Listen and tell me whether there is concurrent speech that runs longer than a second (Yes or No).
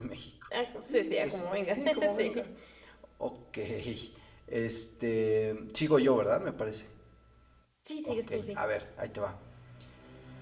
Yes